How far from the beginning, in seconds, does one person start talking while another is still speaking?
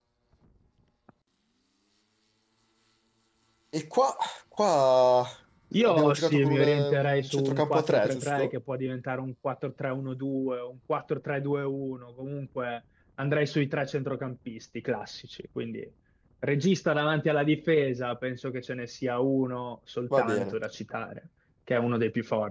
6 s

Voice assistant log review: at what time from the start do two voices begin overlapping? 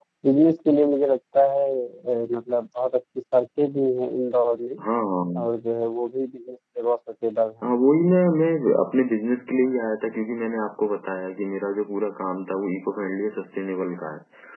none

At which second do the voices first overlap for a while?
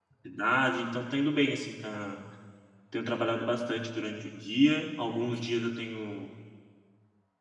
none

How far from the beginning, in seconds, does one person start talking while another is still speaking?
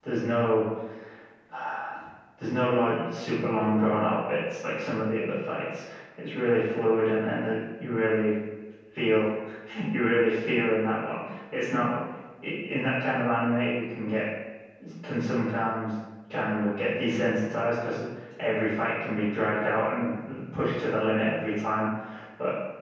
none

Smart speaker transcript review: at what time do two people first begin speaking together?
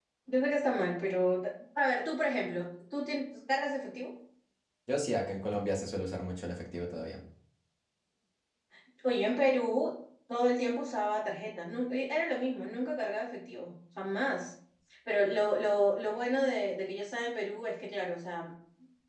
none

